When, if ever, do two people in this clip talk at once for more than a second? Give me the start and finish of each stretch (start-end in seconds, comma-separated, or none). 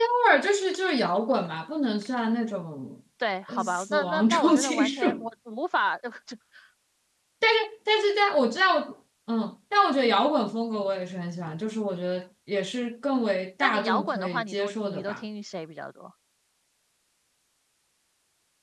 3.5-5.3, 13.6-15.2